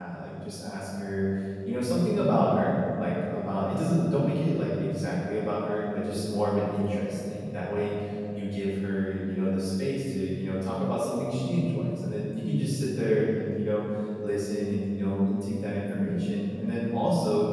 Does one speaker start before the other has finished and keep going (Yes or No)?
No